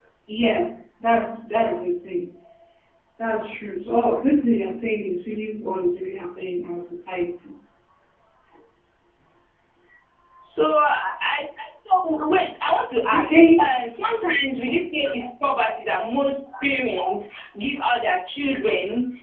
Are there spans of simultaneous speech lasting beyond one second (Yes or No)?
No